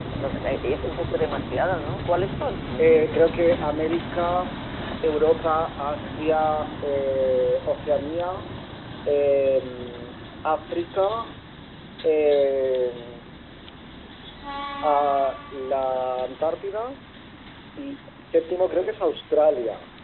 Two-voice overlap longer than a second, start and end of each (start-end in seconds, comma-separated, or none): none